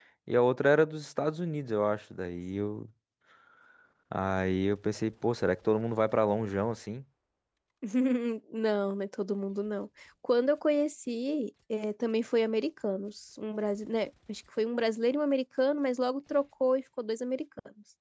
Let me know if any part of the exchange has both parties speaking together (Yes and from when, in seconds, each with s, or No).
No